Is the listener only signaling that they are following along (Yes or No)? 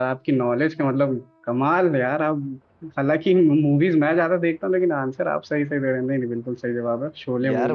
No